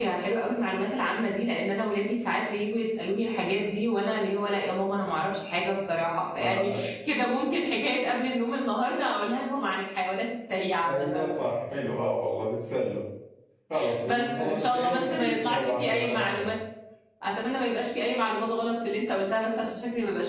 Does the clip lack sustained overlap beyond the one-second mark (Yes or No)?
No